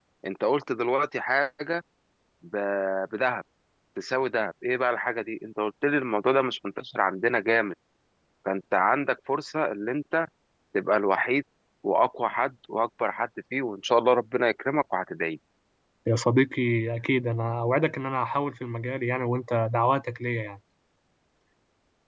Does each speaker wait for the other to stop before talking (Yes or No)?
Yes